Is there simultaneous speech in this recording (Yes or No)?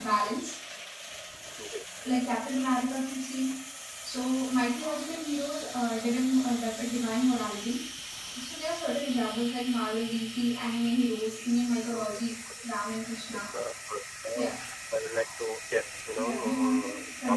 Yes